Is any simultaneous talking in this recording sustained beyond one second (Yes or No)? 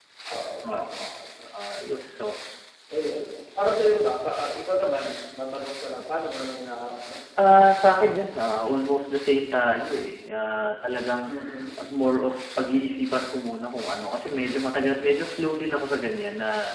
No